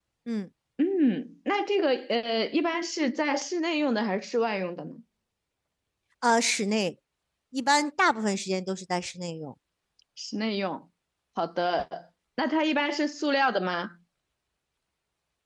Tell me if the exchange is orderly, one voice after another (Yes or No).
Yes